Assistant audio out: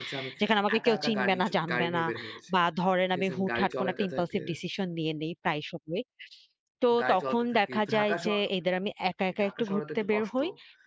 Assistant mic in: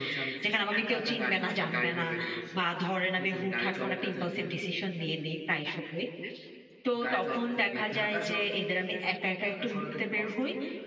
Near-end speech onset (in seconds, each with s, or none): none